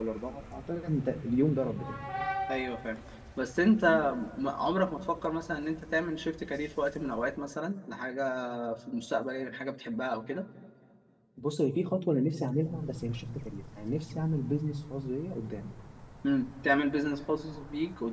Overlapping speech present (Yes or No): No